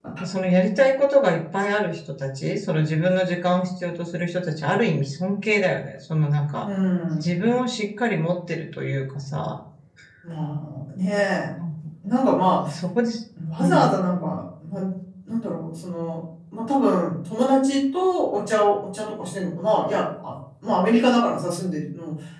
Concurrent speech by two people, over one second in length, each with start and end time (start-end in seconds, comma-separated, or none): none